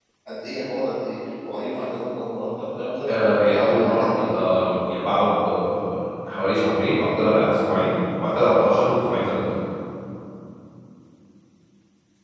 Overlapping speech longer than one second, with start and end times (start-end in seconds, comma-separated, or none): 3.1-4.3